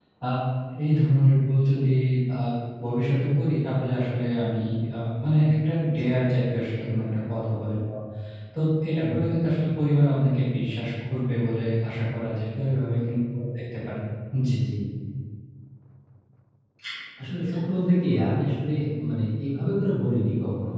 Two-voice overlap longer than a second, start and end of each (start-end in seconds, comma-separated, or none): none